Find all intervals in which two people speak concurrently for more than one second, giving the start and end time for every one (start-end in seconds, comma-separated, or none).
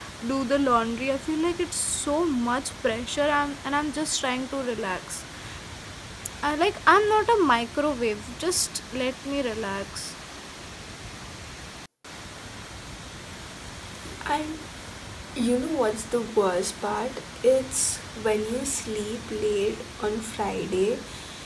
none